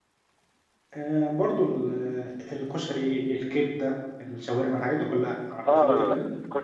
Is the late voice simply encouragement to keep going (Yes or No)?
No